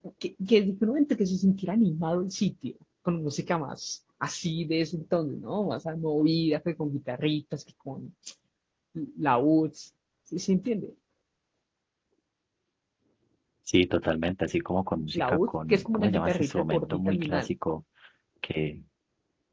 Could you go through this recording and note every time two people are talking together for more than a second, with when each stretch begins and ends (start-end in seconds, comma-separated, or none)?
15.1-17.5